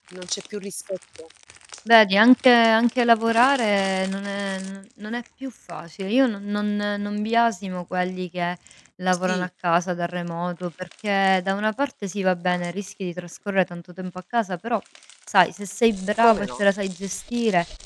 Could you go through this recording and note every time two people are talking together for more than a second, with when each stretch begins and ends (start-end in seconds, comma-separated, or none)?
none